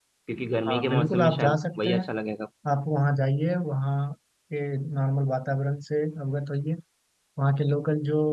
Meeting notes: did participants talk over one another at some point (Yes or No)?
Yes